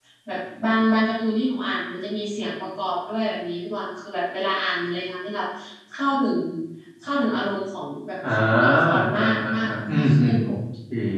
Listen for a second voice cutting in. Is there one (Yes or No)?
Yes